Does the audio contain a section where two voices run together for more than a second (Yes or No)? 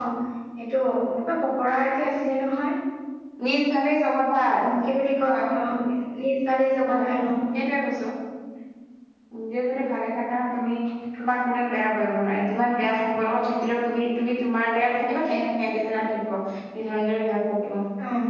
No